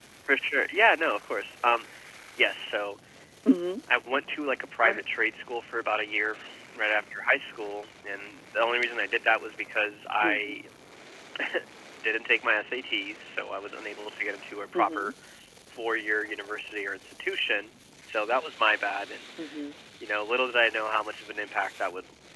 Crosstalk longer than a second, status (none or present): none